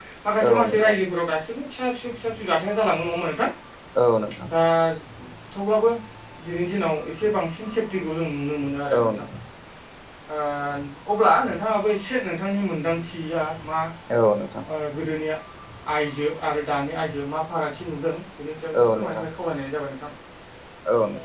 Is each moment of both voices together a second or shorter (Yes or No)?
Yes